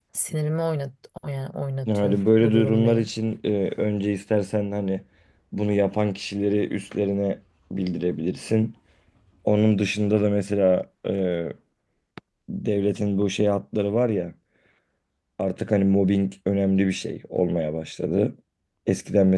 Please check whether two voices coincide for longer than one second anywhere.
Yes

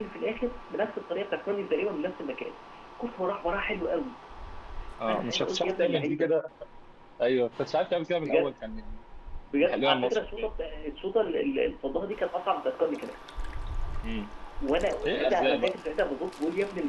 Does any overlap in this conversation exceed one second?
Yes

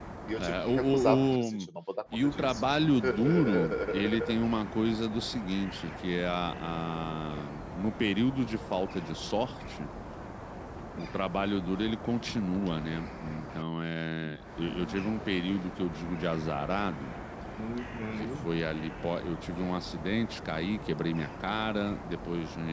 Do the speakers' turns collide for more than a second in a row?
Yes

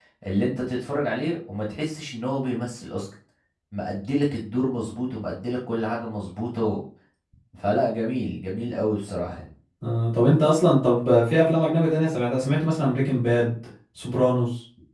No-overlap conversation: Yes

